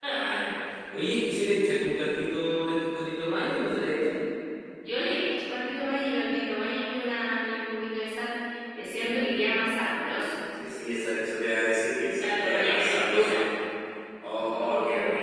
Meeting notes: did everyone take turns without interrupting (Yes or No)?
No